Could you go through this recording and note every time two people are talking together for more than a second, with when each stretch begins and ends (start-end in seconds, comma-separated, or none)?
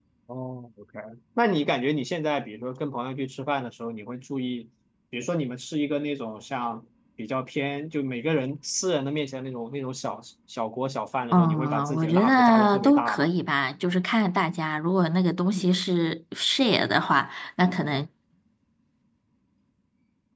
11.3-13.3